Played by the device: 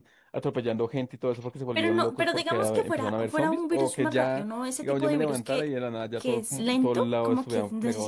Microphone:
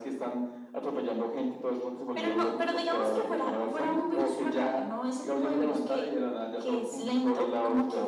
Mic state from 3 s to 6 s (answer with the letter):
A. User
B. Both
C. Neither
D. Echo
D